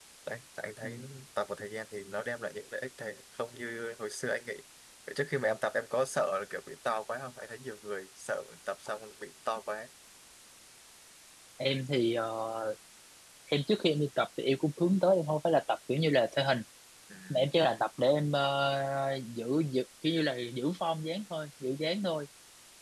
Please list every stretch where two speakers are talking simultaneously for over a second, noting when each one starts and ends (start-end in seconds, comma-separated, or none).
none